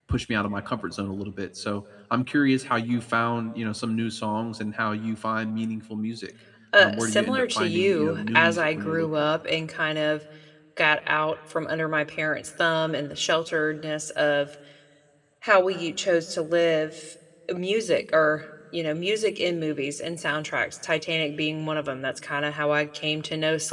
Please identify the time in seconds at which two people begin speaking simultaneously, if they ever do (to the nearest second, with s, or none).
7 s